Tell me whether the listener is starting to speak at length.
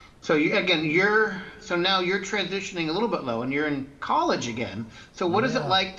No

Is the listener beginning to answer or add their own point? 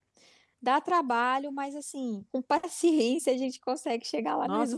Yes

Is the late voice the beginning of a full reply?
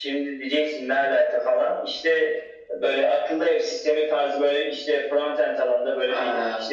No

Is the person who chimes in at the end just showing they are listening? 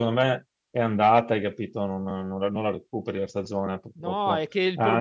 No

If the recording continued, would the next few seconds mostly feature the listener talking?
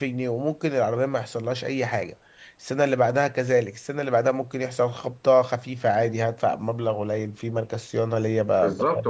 Yes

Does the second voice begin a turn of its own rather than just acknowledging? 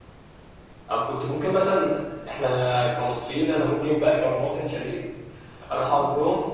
No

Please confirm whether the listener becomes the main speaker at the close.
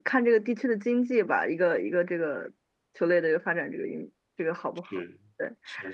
Yes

